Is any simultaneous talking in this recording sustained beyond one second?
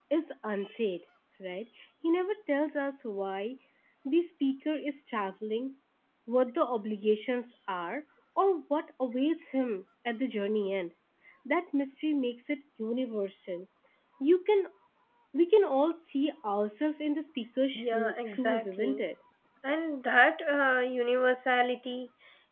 Yes, from 17.7 s

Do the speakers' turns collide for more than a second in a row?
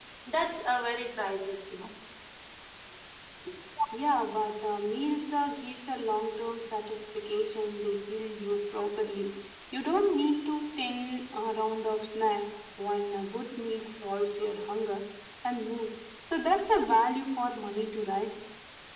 No

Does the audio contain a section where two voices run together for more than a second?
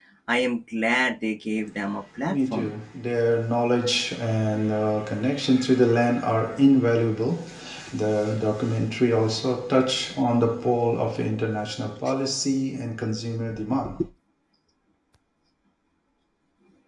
No

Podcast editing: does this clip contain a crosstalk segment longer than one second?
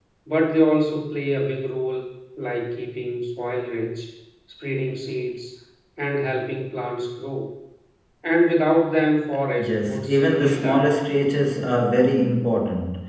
Yes, from 9.6 s

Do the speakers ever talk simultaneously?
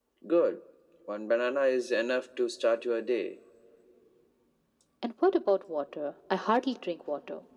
No

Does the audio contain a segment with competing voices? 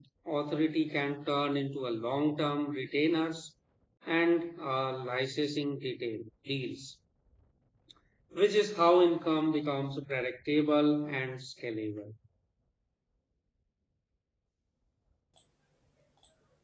No

